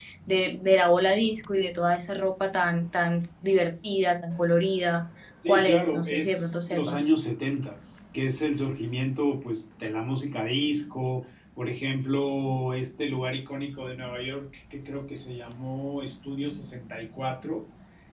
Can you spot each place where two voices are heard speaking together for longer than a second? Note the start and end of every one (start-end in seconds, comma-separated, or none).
5.5-7.1